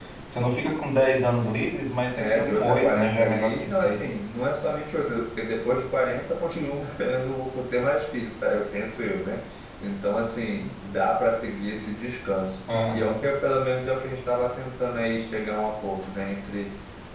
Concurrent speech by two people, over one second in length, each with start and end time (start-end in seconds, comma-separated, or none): 2.1-4.1